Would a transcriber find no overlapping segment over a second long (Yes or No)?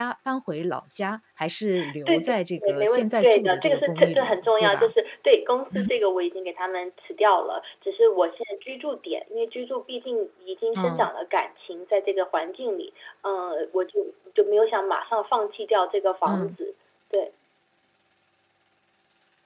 No